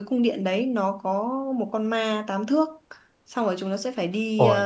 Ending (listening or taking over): listening